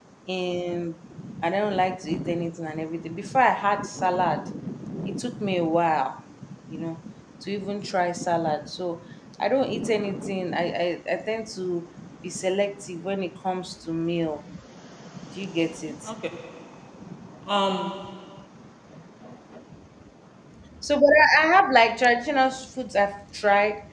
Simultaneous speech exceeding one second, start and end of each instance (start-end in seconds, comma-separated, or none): none